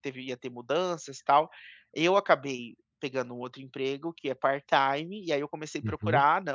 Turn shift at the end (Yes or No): No